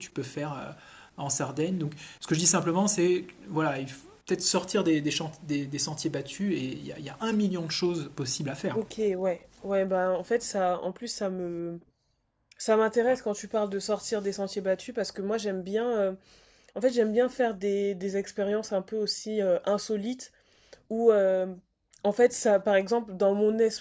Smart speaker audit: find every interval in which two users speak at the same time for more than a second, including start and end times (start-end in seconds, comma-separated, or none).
none